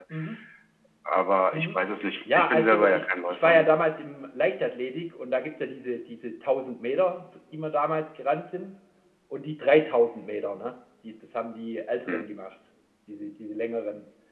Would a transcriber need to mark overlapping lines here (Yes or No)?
Yes